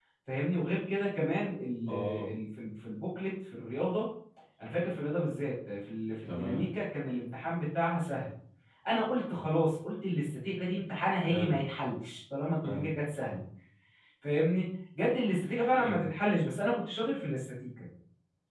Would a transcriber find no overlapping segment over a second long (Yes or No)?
Yes